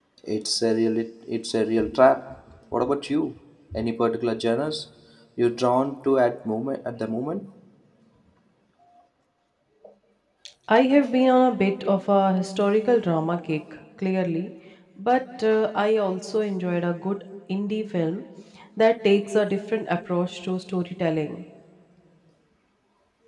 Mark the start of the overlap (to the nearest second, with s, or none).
none